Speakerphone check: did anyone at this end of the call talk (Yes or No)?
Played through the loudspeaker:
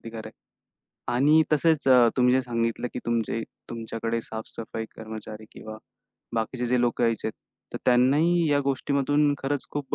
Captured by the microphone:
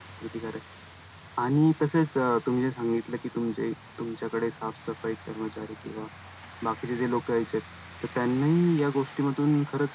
No